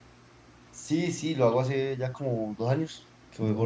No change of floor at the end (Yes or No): Yes